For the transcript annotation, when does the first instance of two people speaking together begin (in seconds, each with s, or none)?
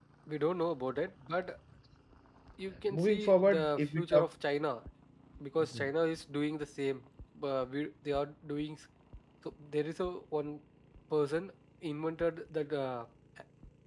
2.9 s